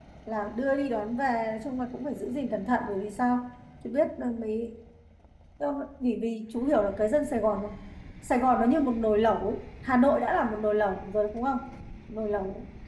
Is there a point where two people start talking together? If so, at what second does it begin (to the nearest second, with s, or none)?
none